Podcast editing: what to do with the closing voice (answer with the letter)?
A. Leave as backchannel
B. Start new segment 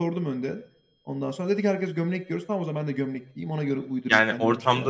B